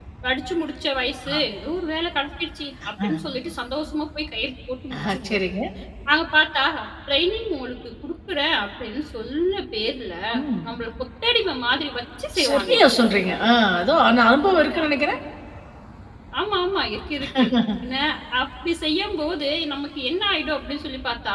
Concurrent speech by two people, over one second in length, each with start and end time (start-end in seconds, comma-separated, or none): none